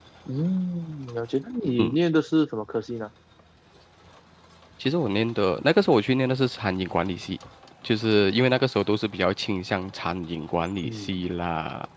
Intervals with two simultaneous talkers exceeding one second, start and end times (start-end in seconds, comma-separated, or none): none